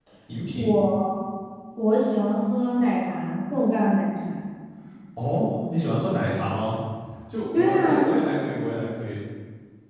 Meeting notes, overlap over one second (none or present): none